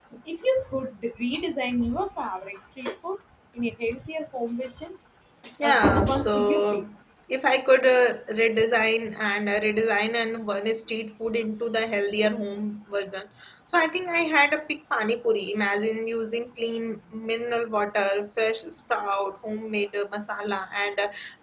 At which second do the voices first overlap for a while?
5.6 s

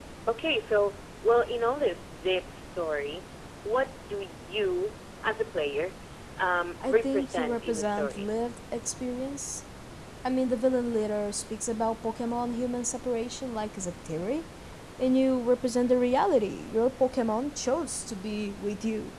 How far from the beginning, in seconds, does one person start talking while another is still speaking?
6.8 s

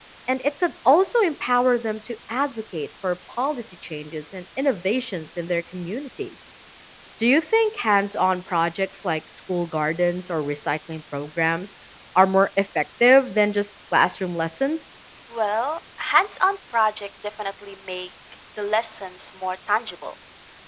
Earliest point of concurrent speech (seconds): none

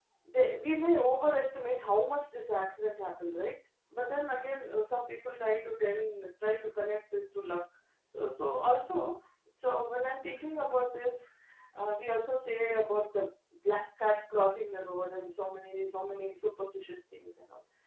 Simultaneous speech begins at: none

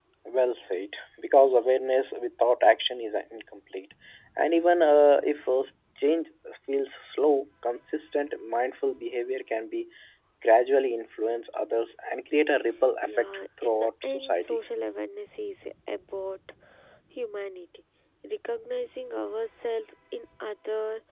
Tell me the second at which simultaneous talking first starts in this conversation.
13.0 s

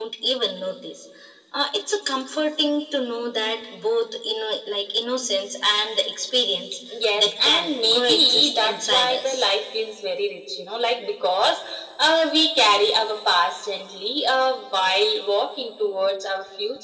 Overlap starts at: 7.2 s

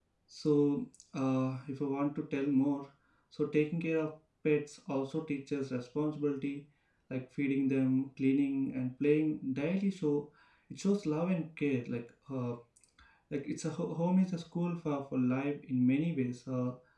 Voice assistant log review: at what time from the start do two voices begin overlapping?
none

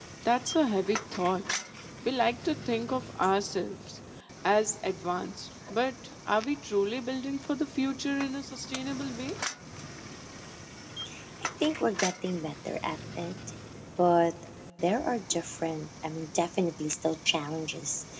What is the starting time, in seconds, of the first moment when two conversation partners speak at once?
none

